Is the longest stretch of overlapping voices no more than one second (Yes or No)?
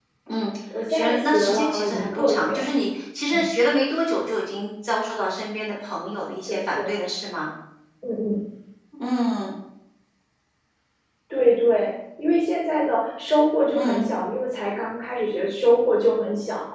No